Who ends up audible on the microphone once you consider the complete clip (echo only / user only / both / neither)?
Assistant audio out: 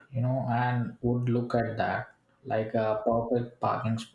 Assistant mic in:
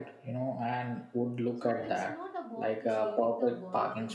both